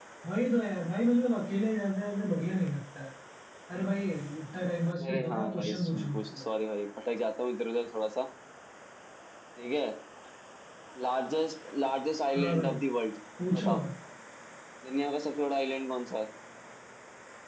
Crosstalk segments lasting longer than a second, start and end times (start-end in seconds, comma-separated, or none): 5.1-6.4